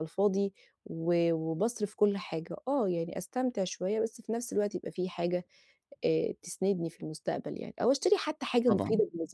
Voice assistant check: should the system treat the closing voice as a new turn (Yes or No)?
No